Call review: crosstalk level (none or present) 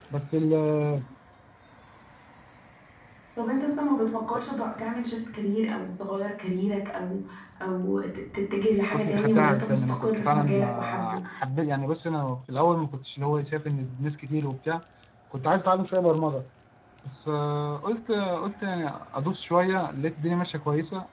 present